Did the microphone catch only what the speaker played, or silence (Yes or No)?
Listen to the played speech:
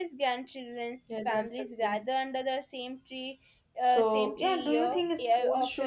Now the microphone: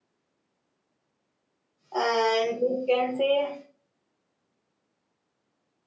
No